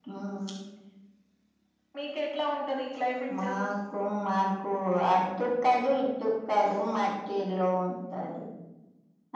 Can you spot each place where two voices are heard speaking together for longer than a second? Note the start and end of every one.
none

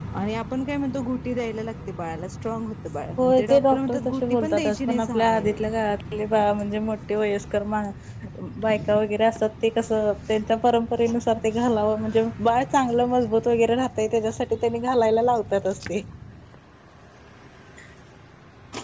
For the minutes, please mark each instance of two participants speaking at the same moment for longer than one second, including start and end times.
3.2-5.4

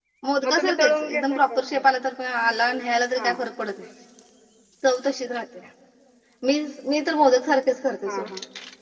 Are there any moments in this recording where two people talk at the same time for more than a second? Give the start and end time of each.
0.6-1.8

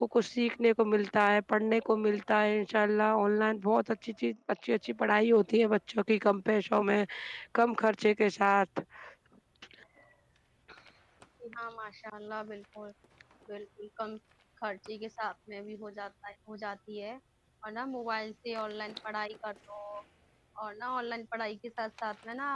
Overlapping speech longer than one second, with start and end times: none

